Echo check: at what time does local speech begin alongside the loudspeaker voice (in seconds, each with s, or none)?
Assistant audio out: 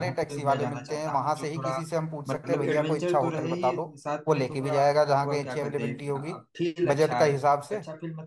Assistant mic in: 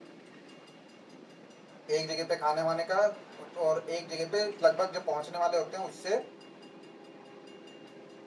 1.9 s